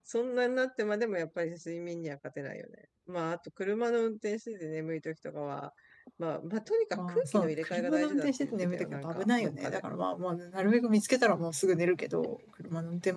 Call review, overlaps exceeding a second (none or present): present